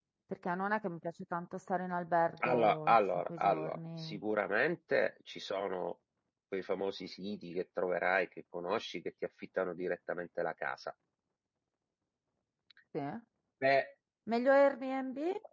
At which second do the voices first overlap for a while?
2.4 s

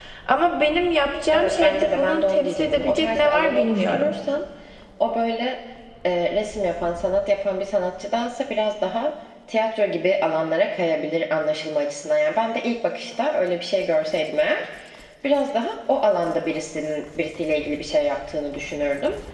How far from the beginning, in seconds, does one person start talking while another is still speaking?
1.3 s

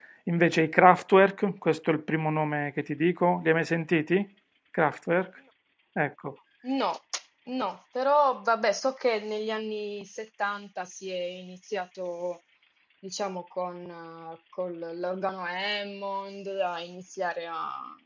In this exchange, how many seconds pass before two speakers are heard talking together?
none

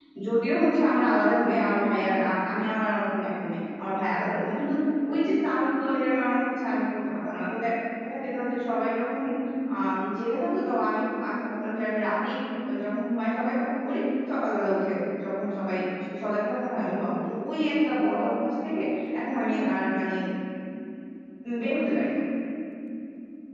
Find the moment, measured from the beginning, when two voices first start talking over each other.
none

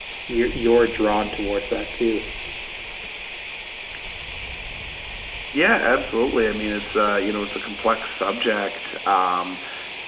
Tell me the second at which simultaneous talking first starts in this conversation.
none

